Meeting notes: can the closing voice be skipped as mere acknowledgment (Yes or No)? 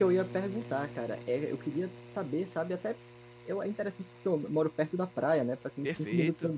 Yes